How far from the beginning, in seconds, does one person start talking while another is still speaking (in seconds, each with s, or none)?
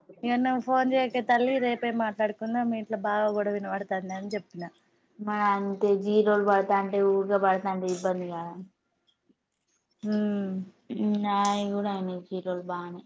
none